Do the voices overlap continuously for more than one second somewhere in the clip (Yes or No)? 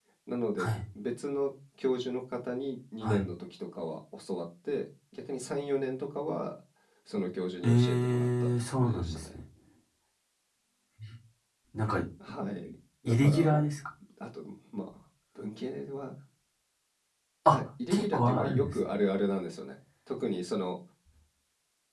Yes